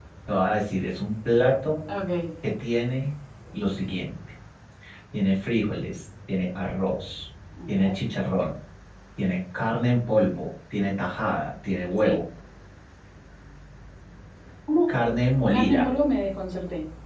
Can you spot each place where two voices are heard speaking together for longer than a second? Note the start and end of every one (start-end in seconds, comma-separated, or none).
none